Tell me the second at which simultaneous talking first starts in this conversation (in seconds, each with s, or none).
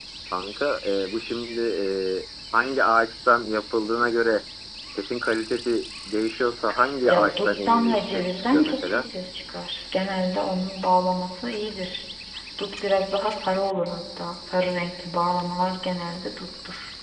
7.1 s